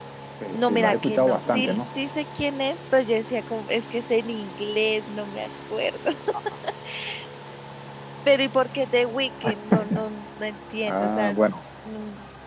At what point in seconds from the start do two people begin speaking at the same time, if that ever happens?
0.5 s

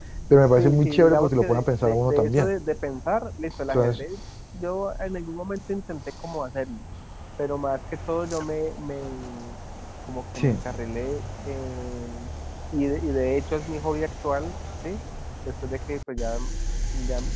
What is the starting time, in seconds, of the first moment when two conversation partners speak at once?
0.6 s

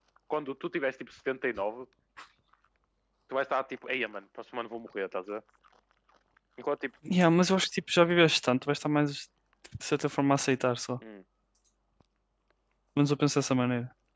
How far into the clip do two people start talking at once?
none

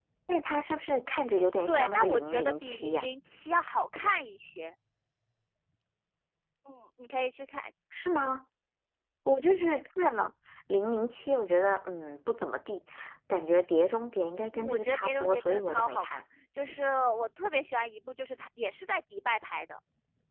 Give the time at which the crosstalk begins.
1.7 s

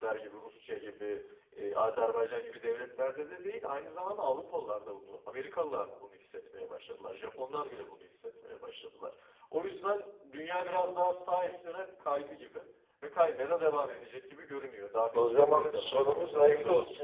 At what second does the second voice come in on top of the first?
15.1 s

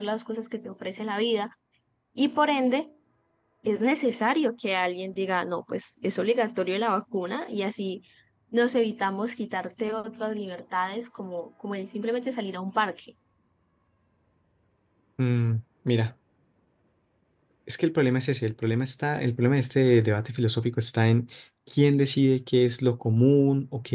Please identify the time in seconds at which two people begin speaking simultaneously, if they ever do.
none

